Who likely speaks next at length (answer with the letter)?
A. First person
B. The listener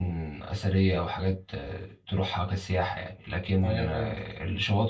A